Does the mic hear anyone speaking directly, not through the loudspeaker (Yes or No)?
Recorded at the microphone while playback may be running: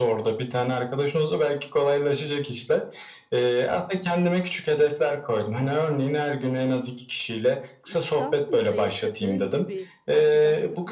Yes